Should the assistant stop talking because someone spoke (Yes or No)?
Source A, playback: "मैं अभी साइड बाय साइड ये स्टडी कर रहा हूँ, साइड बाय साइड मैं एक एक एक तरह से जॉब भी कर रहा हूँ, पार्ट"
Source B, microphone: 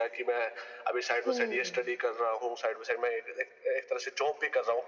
Yes